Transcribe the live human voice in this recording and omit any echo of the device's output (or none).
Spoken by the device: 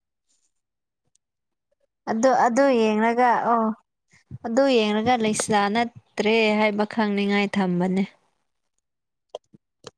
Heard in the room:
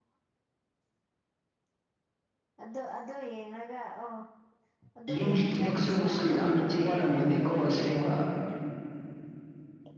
ꯌꯨꯝꯒꯤ ꯊꯕꯛꯁꯨꯕꯁꯨ ꯌꯥꯝꯅꯗꯤ ꯋꯥꯔꯝꯒꯅꯤꯀꯣ ꯑꯁꯦꯡꯕ